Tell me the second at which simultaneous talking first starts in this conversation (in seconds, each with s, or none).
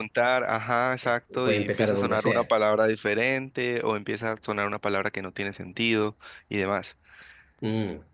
1.0 s